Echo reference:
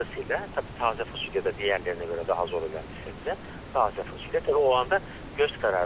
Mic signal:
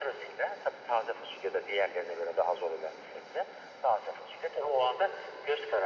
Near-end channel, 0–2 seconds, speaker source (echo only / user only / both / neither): echo only